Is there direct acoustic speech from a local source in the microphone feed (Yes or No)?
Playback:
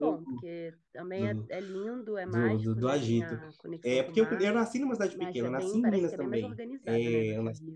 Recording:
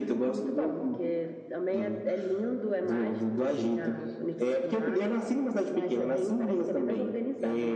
Yes